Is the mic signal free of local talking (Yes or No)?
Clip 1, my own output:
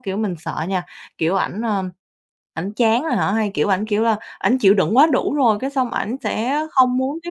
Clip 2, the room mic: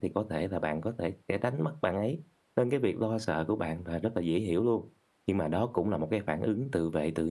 No